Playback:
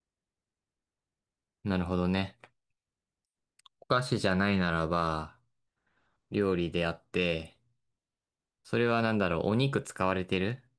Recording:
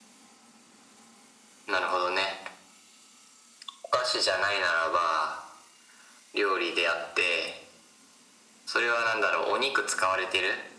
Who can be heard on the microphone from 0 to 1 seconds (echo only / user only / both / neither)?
neither